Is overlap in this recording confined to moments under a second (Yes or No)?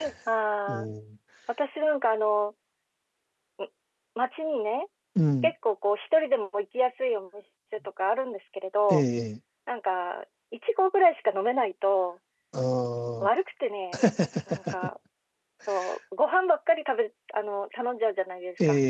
Yes